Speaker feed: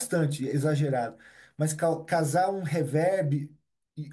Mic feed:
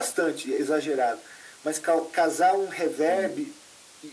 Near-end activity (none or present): present